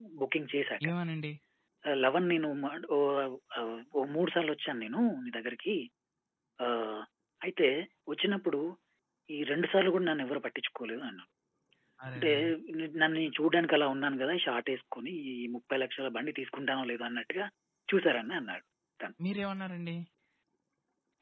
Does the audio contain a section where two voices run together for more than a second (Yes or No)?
No